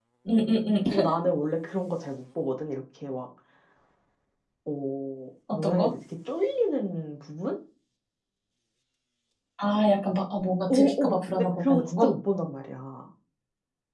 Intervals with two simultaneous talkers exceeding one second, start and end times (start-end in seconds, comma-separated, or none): 10.7-12.1